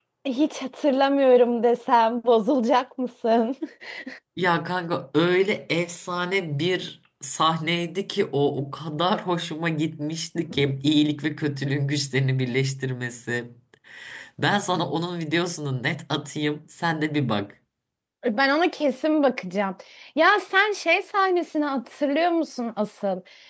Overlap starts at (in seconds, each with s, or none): none